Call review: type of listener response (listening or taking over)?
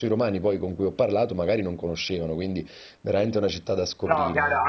taking over